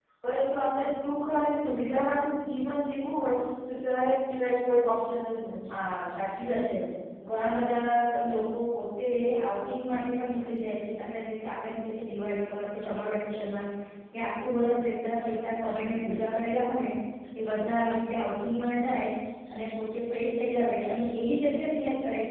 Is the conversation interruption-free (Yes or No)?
Yes